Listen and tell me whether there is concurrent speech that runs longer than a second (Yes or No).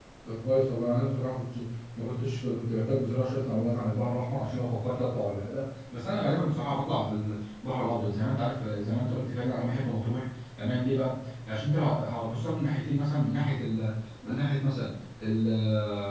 No